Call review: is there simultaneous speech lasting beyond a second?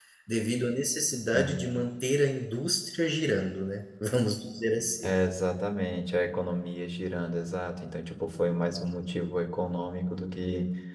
No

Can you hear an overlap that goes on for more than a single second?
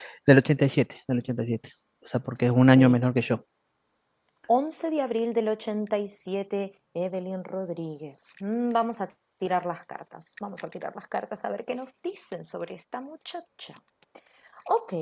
No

